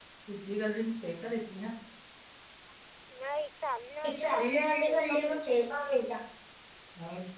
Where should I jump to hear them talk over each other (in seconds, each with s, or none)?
4.0 s